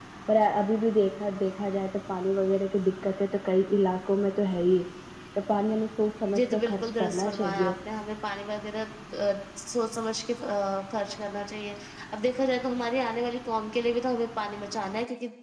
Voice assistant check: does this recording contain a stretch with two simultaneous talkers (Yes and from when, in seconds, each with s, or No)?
Yes, from 6.3 s